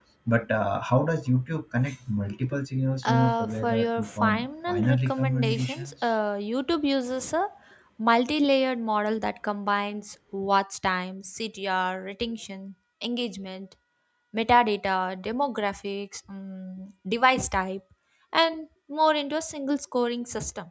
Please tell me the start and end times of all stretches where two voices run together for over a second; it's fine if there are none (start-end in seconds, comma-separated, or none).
3.0-5.9